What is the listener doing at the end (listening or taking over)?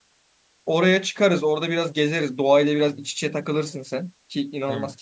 listening